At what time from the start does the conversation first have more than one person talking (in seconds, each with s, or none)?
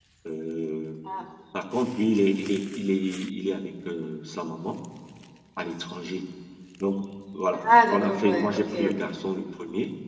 7.6 s